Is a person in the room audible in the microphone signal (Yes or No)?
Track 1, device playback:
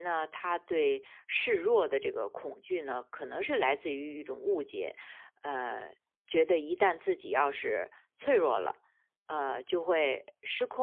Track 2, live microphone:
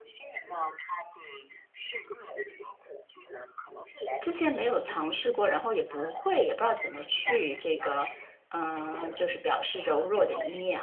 Yes